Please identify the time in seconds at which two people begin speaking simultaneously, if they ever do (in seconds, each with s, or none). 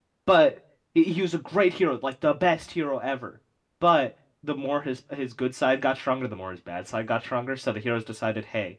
none